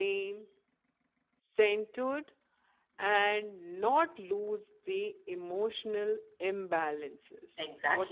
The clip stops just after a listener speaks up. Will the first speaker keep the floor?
No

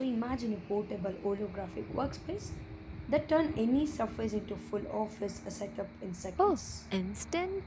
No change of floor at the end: No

